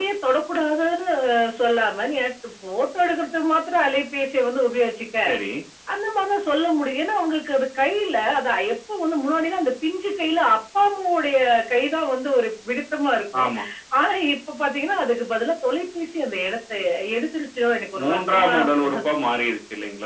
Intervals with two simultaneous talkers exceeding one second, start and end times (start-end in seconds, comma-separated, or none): 18.0-19.3